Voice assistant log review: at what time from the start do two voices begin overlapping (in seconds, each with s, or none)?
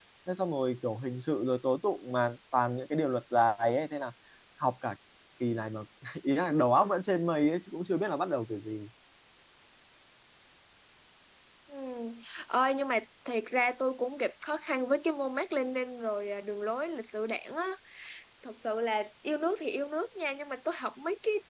none